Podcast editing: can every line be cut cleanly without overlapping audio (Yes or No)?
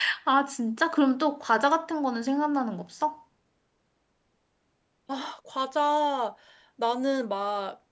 Yes